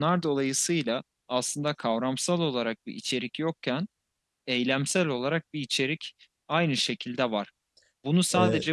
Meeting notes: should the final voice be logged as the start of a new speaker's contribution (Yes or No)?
No